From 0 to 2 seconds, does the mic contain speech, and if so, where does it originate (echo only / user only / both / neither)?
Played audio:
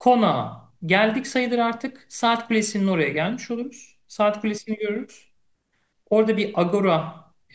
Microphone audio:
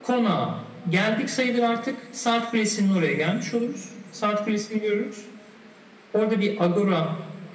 echo only